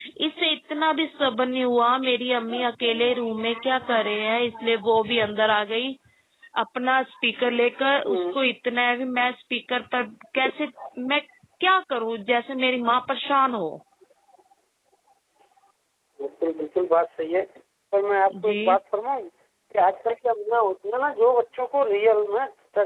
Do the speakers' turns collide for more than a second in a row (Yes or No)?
No